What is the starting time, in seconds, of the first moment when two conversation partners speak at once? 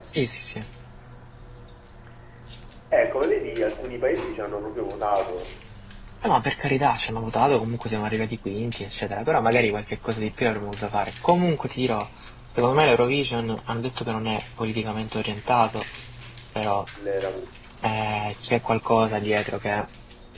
none

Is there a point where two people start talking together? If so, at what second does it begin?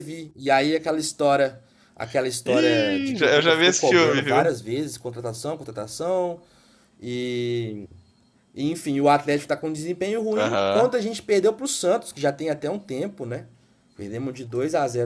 2 s

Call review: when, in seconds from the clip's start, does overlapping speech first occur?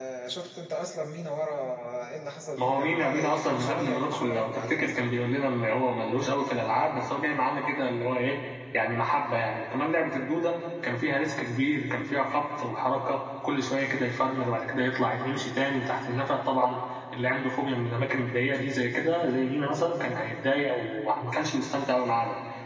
3 s

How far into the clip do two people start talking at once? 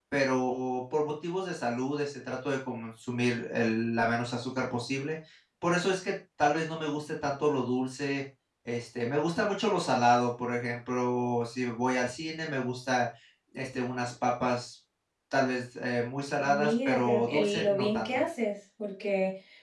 16 s

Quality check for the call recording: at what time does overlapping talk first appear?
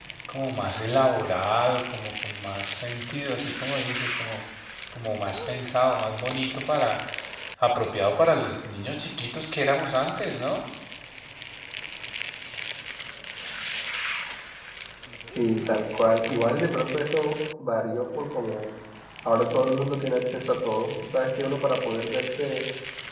none

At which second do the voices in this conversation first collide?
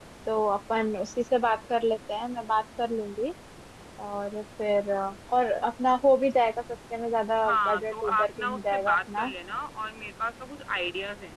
7 s

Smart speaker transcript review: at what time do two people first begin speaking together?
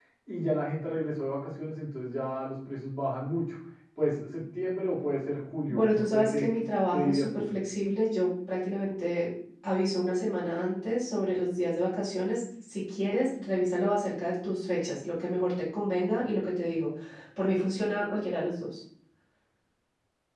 6 s

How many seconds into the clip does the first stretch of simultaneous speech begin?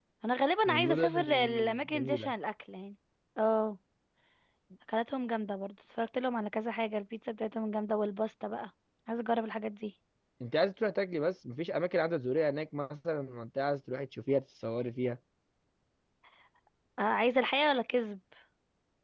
1 s

